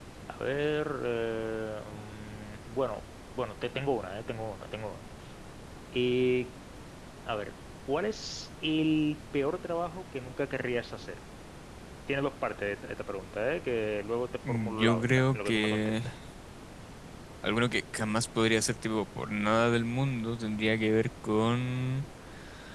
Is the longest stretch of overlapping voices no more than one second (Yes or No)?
No